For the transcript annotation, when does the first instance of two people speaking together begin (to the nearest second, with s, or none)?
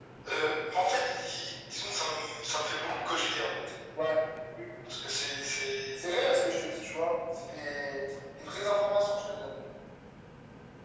none